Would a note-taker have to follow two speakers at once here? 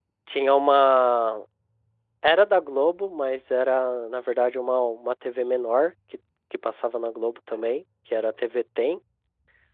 No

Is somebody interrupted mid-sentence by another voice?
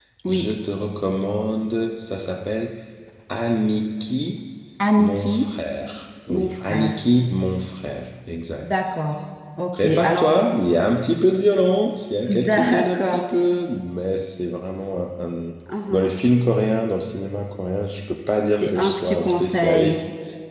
Yes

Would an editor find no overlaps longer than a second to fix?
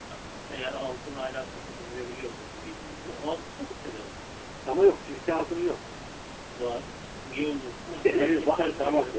No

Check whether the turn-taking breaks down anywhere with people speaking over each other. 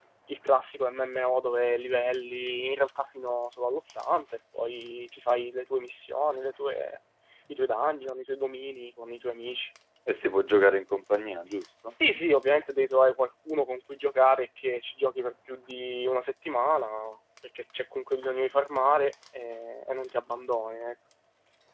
No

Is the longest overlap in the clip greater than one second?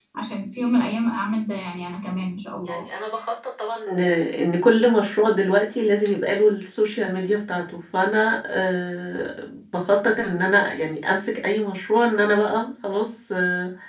No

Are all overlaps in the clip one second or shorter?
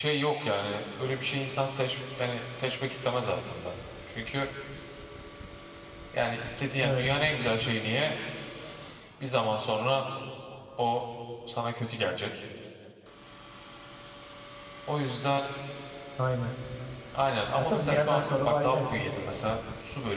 No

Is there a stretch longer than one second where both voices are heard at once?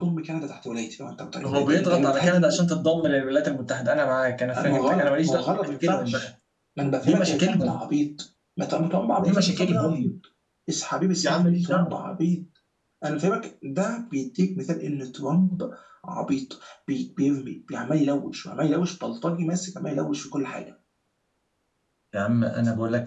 Yes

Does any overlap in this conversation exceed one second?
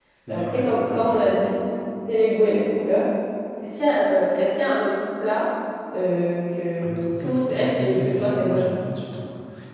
Yes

